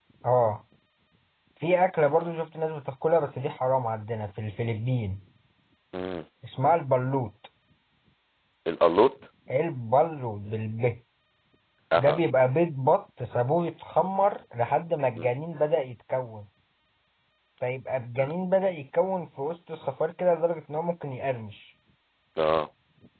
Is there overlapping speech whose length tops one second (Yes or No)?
No